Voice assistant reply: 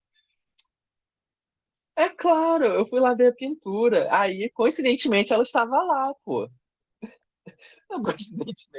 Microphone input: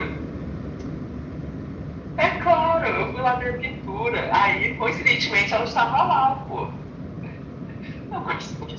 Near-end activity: none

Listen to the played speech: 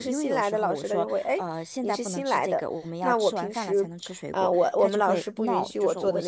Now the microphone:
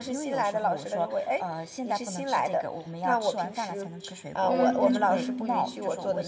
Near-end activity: present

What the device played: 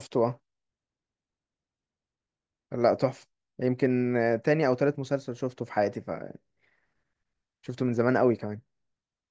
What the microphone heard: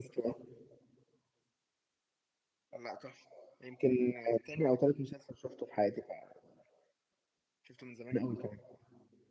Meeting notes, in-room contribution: none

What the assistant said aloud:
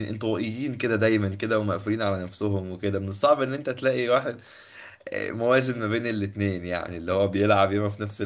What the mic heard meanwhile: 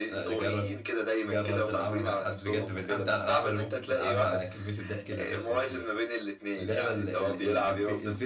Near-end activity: present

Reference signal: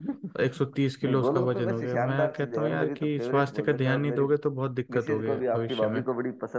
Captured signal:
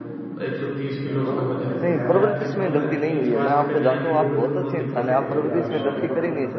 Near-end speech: present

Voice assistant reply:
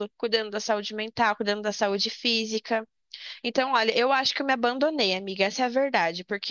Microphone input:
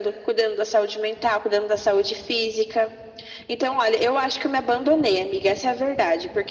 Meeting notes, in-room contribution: none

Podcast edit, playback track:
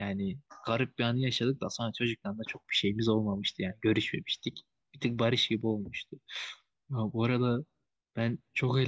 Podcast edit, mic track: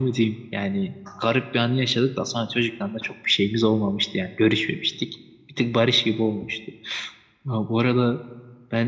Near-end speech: none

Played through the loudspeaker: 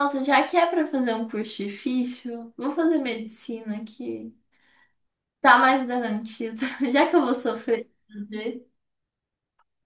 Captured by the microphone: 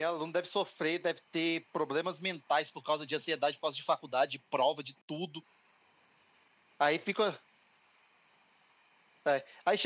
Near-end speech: present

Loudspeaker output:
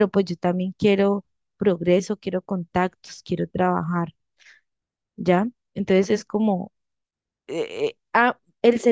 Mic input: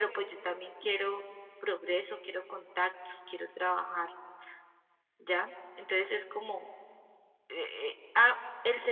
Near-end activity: none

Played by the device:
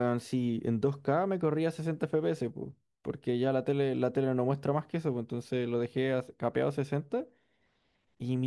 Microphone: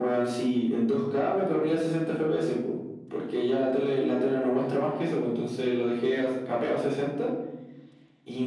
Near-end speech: none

